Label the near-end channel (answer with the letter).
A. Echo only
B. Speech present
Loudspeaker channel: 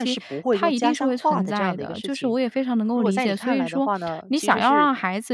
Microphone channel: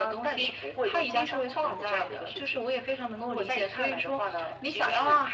A